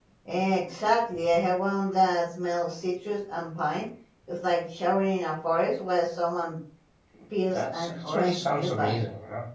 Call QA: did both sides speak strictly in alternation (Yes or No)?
No